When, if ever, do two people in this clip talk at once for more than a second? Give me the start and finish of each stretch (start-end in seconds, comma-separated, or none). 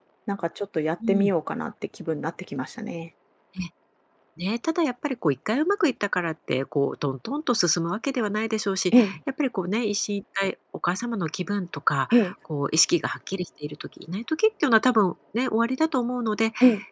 none